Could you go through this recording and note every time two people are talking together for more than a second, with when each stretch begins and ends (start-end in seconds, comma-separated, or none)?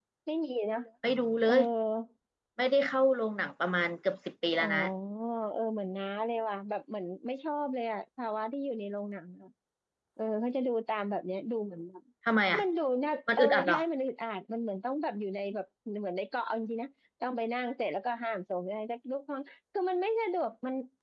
none